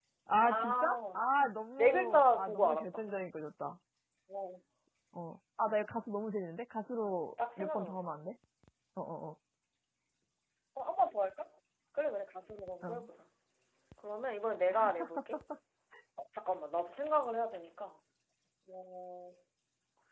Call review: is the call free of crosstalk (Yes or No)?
No